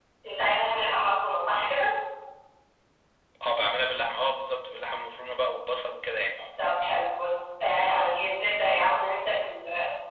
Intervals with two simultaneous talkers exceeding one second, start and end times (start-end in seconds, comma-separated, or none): none